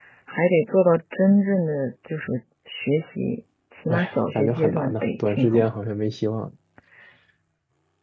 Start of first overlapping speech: 4 s

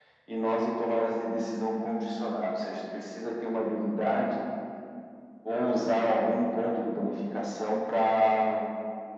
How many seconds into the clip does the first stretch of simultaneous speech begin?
none

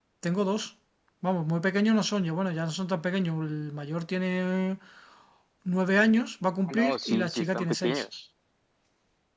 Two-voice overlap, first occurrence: 7 s

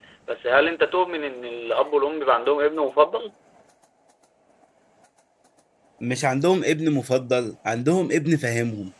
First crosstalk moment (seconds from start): none

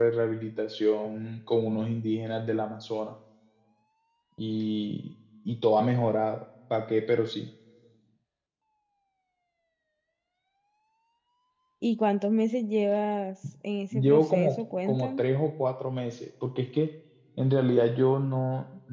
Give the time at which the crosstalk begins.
14 s

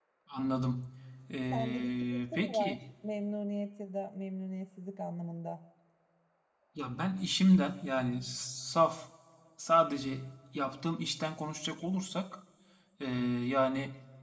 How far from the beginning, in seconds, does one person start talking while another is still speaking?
2 s

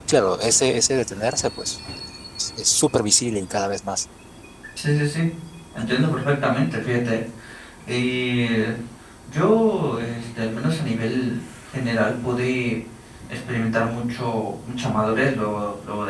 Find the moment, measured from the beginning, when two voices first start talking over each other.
none

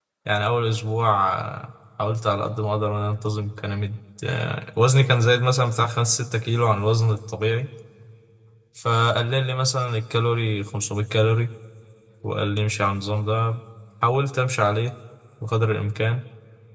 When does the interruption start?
none

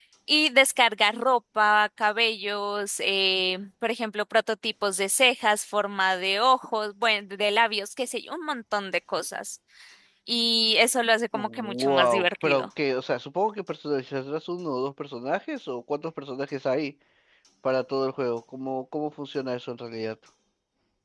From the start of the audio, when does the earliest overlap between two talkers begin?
11 s

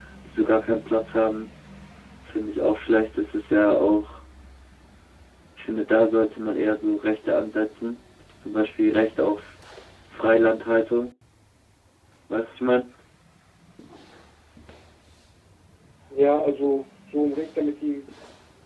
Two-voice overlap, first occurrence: none

